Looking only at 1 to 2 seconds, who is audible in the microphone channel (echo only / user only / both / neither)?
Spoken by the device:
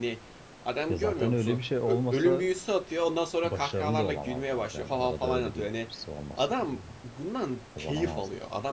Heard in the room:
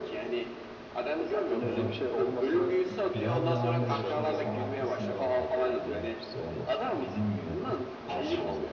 both